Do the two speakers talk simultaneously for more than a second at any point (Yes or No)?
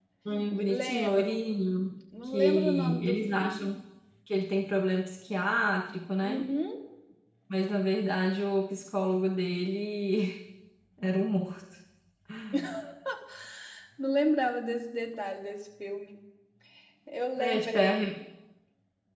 Yes